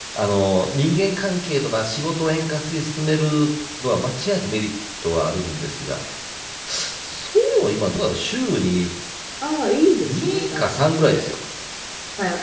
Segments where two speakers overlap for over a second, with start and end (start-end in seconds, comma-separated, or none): 10.0-11.3